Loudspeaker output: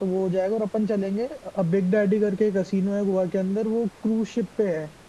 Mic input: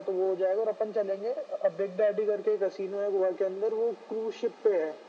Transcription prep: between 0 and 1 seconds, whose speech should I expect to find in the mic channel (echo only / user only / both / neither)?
echo only